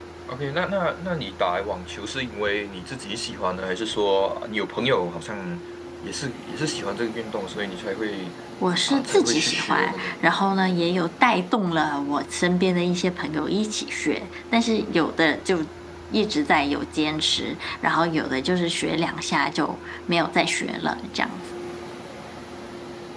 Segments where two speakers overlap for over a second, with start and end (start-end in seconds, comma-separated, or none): 8.9-10.1